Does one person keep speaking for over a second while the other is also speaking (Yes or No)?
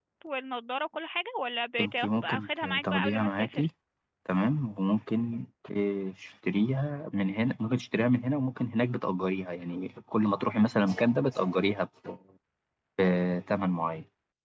Yes